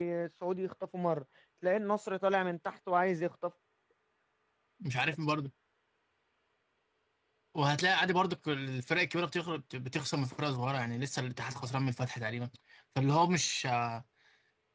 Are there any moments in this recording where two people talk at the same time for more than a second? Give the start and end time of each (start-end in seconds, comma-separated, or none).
none